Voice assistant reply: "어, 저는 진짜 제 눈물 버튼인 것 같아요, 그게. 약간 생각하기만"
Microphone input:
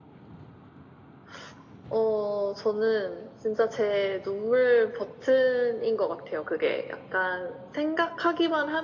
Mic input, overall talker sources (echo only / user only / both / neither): echo only